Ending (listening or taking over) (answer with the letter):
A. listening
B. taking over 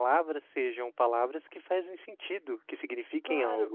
B